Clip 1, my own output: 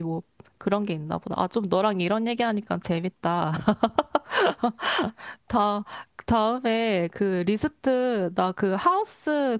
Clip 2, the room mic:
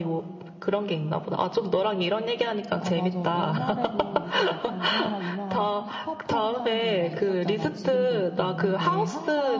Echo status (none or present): present